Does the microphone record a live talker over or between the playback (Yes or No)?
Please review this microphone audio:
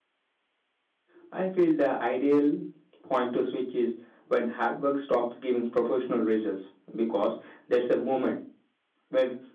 No